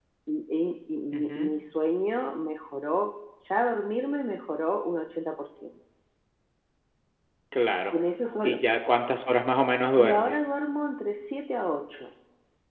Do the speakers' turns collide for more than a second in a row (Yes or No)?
No